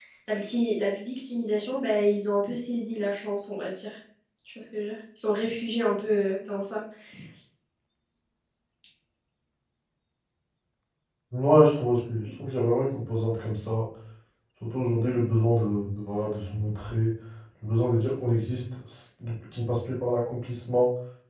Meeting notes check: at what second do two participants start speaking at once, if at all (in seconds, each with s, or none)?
none